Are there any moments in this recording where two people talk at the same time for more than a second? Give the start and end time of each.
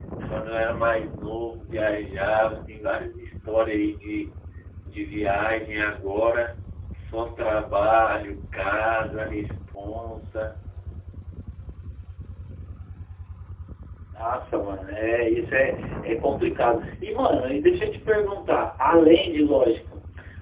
none

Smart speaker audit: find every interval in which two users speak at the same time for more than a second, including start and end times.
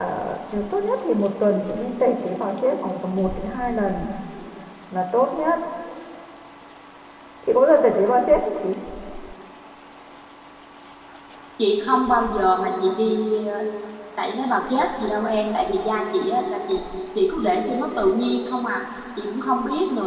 none

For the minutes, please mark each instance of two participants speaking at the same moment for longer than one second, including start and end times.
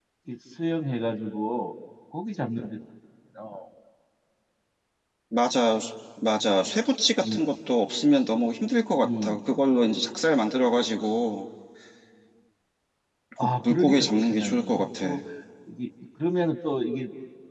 13.4-15.2

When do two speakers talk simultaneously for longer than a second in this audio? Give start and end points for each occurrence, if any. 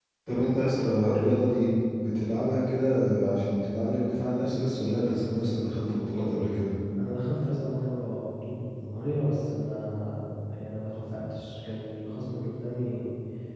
none

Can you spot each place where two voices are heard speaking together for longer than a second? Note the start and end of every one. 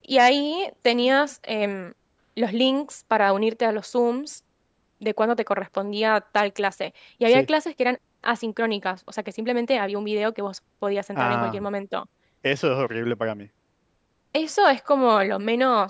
none

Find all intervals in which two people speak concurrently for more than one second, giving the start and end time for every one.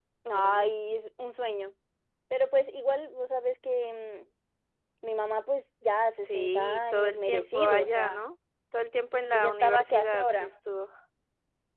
6.2-8.2, 9.3-10.5

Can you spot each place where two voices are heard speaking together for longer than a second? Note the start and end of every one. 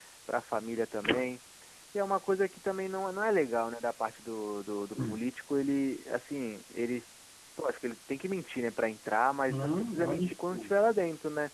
9.5-10.7

